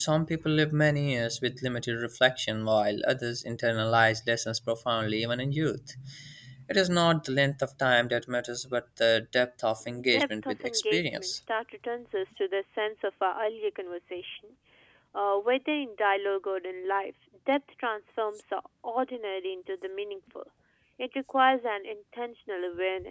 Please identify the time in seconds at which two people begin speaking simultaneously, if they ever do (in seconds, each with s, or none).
10.1 s